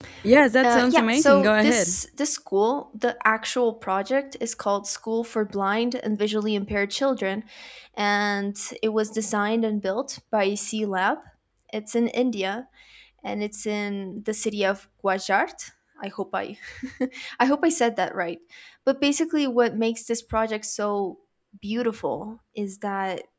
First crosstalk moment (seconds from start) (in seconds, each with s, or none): 0.6 s